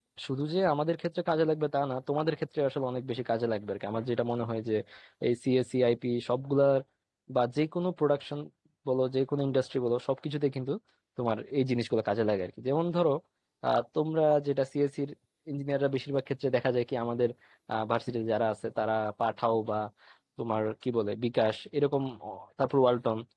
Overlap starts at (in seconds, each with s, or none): none